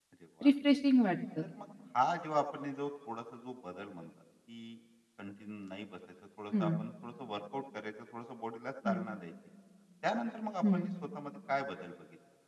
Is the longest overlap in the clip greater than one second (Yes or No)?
No